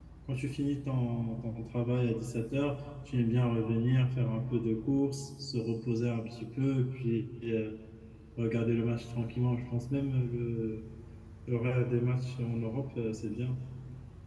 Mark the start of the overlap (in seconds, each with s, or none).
none